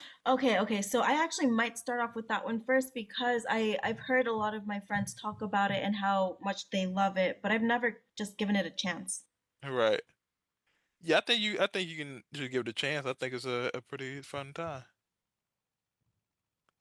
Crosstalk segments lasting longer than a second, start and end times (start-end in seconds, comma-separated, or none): none